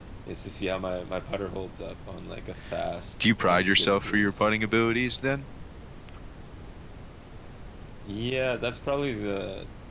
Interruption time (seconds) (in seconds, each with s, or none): 3.2 s